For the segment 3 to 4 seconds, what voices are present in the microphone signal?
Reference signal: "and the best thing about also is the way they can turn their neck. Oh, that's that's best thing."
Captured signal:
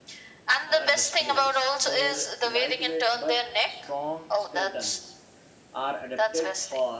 both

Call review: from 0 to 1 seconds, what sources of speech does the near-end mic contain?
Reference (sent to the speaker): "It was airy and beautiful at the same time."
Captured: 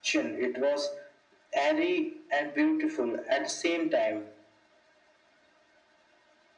echo only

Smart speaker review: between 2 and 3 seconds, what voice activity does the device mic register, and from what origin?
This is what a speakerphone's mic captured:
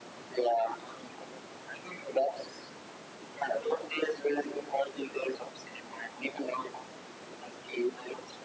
echo only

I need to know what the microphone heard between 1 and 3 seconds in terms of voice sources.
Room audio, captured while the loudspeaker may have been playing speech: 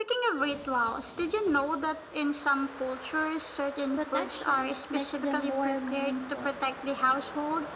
echo only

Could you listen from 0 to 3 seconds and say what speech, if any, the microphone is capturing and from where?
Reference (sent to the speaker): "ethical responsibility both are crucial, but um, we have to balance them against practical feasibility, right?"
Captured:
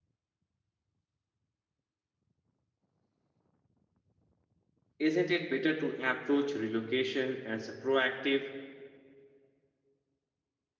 neither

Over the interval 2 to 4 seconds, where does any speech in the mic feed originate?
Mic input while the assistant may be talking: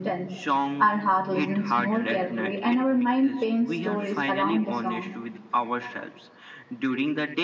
echo only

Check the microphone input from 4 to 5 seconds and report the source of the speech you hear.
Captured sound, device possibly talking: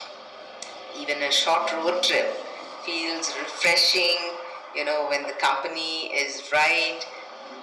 echo only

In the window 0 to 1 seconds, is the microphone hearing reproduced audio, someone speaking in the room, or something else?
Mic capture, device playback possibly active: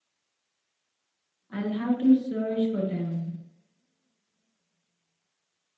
neither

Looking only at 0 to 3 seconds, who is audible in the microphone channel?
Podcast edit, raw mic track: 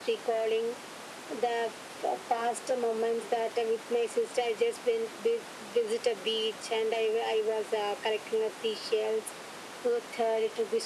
echo only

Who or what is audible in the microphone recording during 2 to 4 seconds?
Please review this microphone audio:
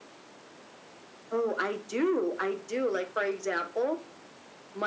echo only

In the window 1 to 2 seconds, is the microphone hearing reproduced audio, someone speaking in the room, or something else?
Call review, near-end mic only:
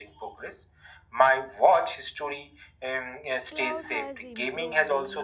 echo only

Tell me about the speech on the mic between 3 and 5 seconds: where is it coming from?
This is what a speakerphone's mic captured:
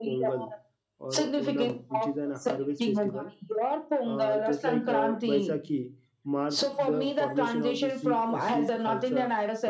both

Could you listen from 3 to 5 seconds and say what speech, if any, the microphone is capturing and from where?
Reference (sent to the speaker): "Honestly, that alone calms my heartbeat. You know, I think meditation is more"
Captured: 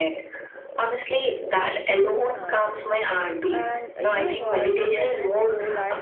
both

